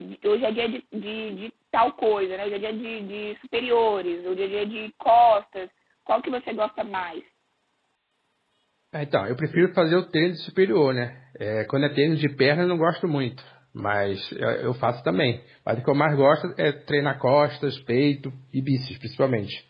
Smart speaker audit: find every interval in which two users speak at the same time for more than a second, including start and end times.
none

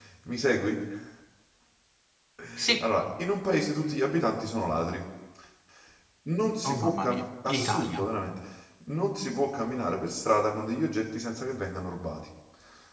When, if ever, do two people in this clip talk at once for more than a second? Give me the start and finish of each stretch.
6.6-8.0

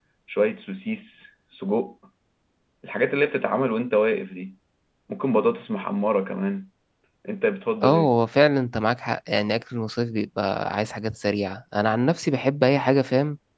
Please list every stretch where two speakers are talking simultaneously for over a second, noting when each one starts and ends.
none

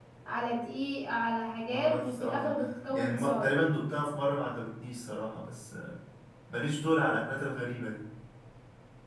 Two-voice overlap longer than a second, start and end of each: 1.6-3.5

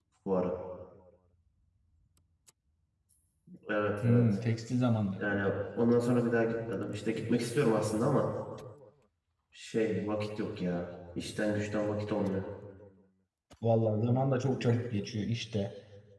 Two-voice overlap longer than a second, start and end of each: none

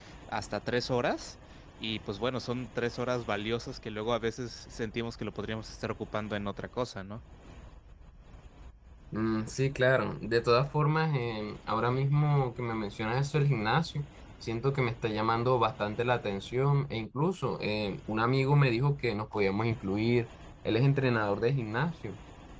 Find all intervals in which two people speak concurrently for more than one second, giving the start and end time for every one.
none

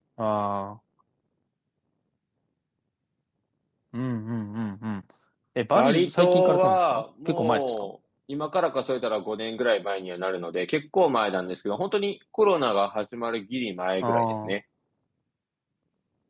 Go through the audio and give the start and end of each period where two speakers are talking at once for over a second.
5.8-7.9

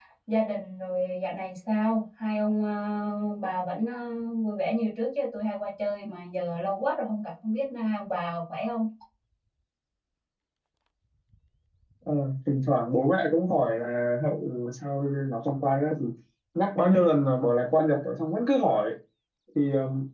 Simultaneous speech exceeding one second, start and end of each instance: none

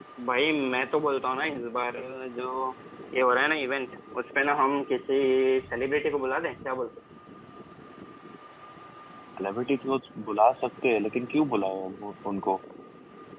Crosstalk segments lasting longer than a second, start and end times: none

